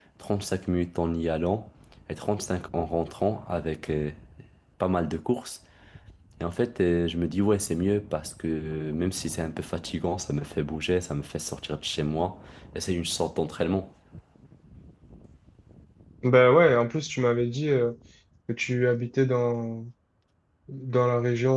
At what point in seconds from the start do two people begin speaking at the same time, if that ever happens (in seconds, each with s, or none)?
none